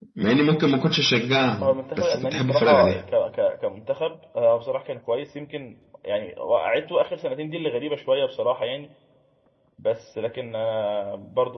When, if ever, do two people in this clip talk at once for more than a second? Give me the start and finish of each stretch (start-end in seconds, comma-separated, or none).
1.6-3.0